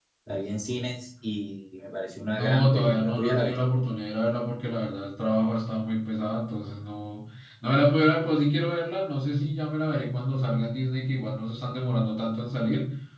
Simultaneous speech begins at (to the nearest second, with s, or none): 2 s